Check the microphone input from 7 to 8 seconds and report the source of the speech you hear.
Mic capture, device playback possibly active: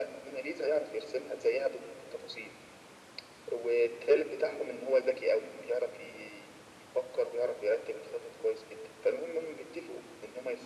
echo only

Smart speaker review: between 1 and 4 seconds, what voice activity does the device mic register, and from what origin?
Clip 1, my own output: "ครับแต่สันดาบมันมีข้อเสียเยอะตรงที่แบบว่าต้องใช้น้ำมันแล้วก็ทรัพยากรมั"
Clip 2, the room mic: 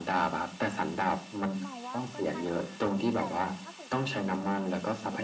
both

